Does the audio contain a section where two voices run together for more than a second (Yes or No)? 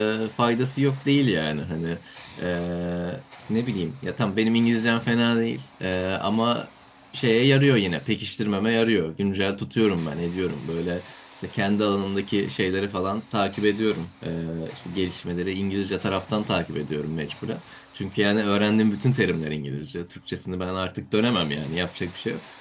No